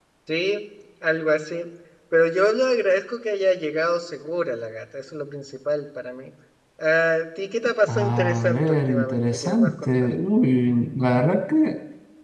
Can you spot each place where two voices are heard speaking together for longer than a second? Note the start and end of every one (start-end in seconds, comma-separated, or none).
7.9-9.9